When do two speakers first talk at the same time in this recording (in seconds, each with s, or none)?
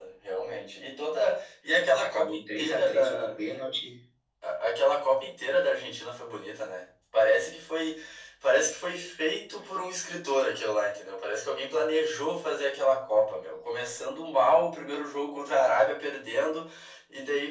2.0 s